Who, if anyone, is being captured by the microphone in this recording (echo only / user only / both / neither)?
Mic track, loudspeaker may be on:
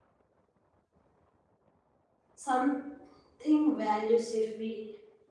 user only